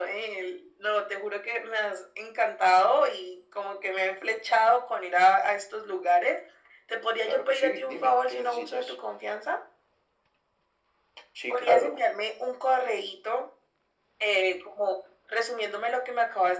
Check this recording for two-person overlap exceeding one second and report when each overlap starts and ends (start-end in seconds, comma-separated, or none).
7.2-8.9